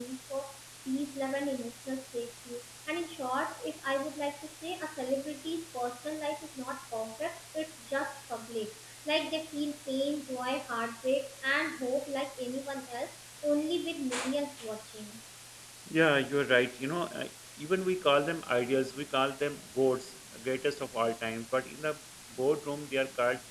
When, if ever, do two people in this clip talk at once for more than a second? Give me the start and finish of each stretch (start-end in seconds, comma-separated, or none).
none